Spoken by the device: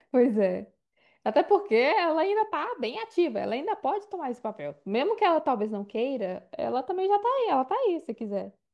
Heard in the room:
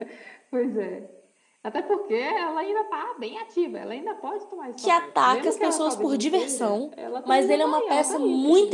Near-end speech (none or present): present